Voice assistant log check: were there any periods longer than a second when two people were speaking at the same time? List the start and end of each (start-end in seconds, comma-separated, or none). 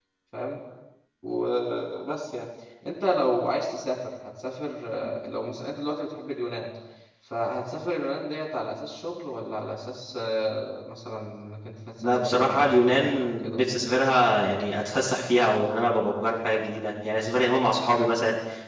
12.0-13.8